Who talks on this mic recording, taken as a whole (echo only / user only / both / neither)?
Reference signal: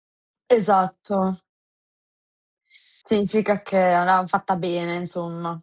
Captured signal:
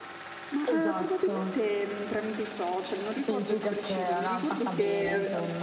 both